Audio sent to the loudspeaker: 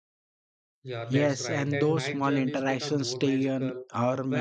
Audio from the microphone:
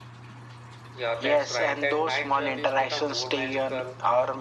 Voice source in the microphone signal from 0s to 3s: echo only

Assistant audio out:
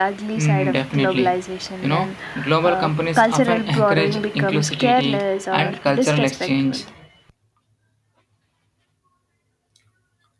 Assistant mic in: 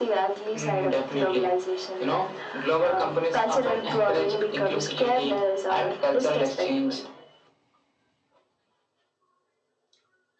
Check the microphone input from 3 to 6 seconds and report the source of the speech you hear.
echo only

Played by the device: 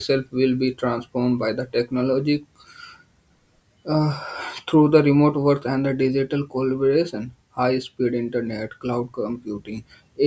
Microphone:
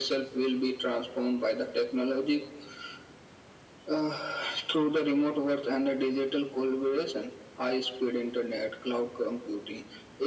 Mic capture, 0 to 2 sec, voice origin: echo only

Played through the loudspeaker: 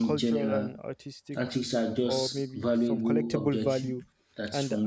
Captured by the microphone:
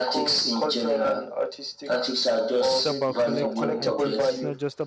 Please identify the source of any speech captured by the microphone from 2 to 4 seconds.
both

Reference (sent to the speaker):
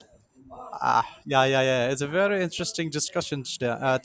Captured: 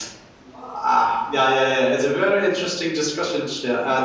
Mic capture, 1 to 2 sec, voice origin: echo only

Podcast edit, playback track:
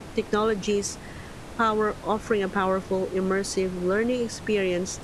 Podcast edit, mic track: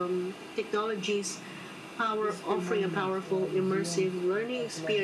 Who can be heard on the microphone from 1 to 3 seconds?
both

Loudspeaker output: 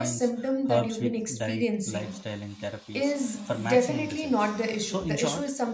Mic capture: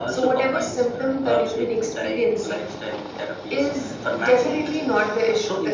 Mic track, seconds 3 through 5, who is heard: echo only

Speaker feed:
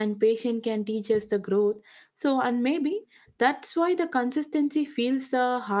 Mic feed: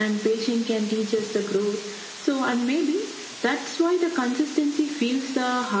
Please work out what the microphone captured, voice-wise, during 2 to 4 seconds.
echo only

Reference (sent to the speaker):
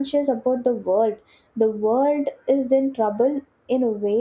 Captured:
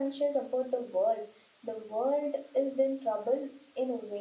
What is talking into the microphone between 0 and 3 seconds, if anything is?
echo only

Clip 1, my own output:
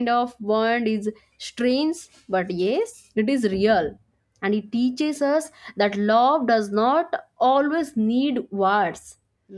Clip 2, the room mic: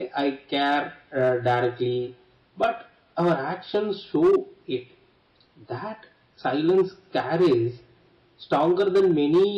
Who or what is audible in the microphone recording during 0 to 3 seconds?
user only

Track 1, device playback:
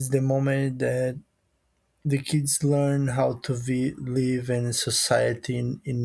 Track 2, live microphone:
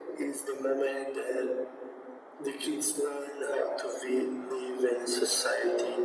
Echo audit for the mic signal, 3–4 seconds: echo only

